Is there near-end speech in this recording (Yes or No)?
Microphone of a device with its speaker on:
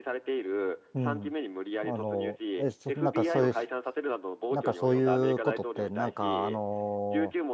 Yes